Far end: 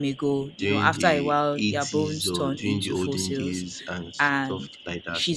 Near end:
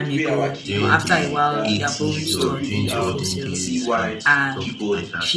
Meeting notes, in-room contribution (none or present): present